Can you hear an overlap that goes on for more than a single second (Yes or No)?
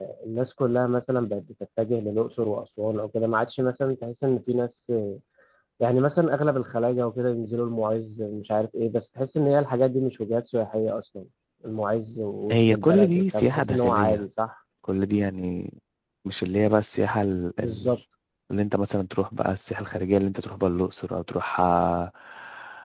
Yes